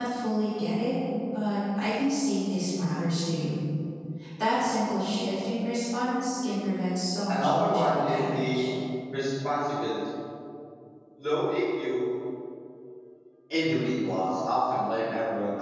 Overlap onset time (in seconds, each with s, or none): 7.3 s